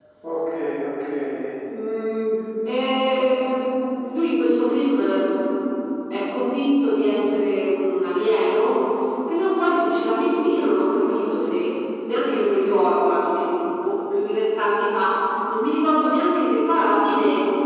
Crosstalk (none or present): none